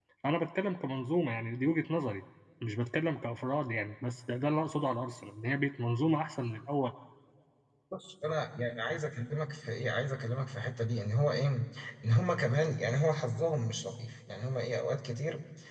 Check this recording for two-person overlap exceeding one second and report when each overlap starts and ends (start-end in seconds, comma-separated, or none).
none